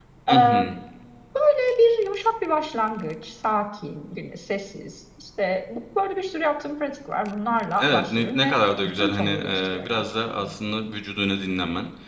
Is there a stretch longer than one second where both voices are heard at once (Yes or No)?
Yes